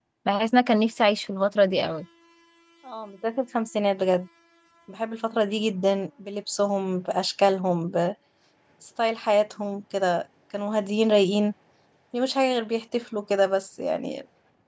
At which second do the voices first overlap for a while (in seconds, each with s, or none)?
none